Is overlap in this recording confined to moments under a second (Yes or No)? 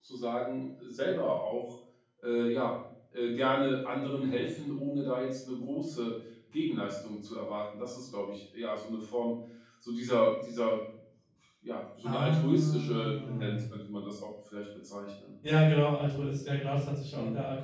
No